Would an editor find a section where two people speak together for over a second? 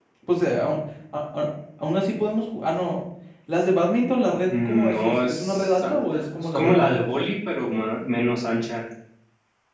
Yes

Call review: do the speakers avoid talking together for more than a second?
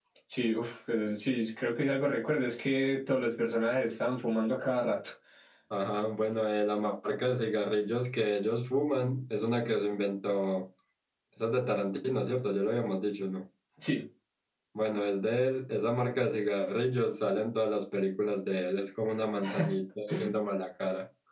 Yes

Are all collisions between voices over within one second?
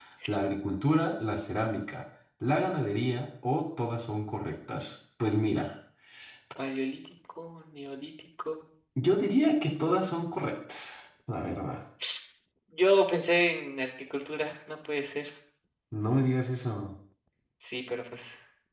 Yes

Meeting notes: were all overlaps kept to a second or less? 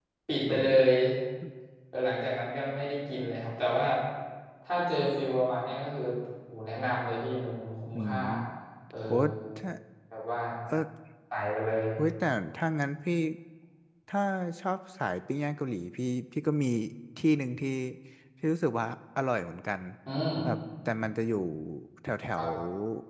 Yes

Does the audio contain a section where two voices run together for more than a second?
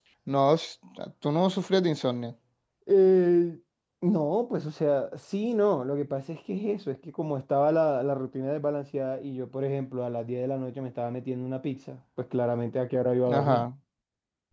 No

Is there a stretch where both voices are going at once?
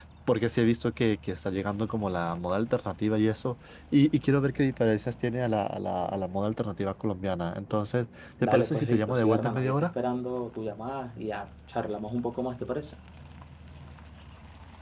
Yes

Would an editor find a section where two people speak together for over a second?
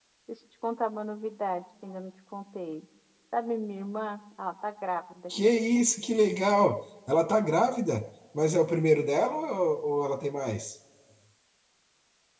No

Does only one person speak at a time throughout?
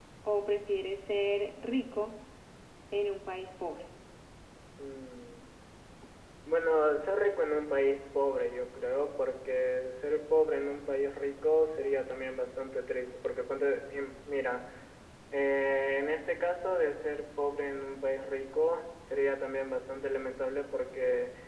Yes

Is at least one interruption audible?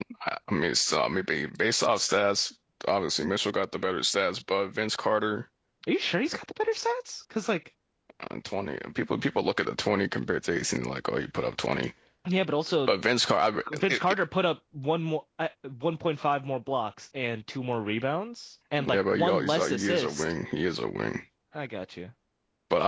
Yes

